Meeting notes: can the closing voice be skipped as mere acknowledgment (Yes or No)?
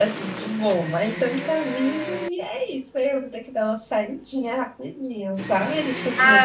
No